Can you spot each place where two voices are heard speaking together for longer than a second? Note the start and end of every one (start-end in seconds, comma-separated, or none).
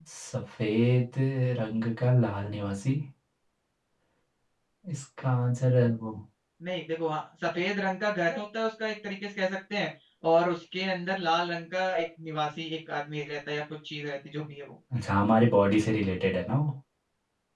none